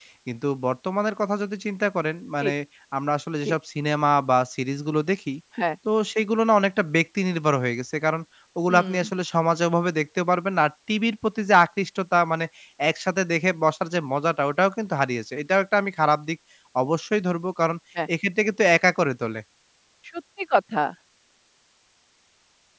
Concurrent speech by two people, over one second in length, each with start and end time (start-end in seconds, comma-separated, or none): none